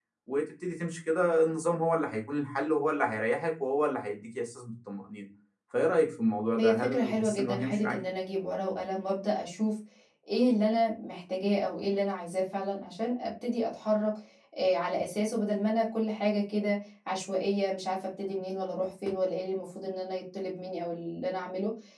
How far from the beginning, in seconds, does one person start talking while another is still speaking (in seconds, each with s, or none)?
6.6 s